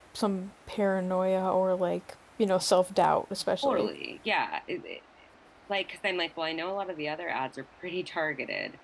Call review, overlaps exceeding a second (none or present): none